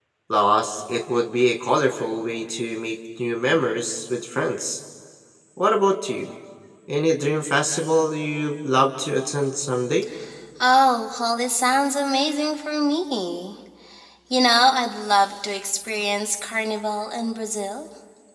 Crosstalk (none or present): none